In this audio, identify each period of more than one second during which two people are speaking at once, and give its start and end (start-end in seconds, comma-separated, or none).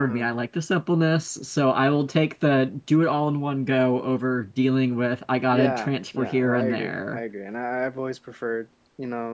5.5-7.2